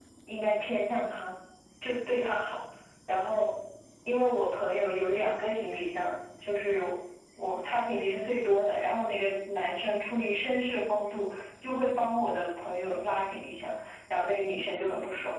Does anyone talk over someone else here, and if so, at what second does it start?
none

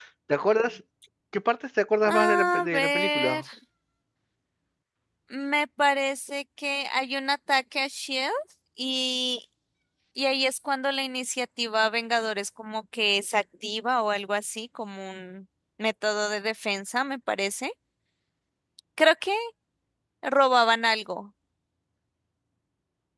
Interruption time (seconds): 2.1 s

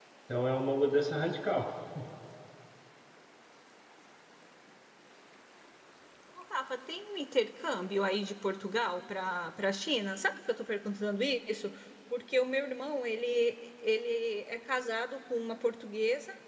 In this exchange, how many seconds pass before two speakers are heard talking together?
none

